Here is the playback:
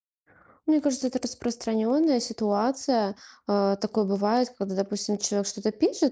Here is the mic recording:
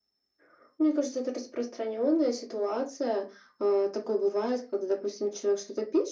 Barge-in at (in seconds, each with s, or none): none